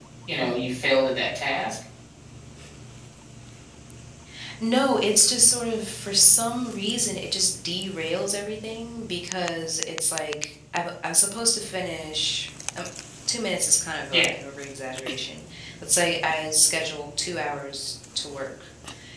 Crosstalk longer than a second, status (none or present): none